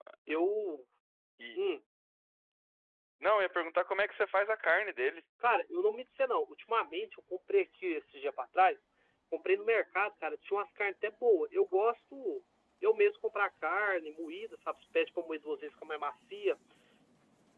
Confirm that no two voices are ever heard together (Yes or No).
Yes